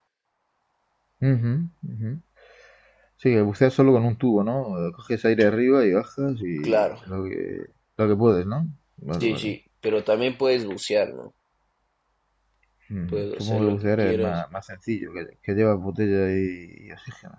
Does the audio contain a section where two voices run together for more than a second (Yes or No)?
Yes